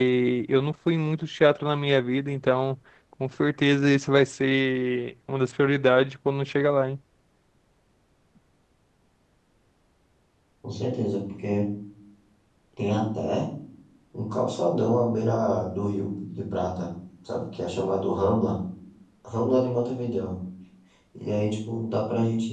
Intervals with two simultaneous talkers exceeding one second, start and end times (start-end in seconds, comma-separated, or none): none